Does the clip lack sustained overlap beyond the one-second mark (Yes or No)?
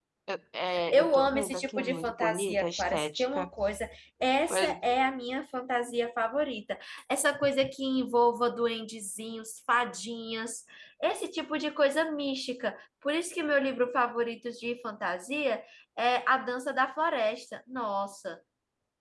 No